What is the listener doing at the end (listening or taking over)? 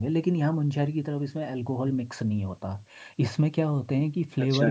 listening